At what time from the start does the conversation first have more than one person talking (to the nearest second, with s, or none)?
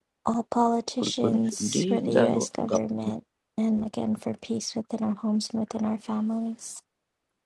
1 s